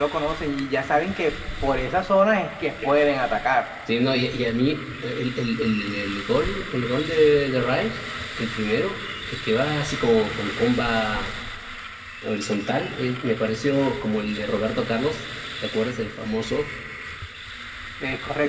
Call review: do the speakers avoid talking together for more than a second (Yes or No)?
Yes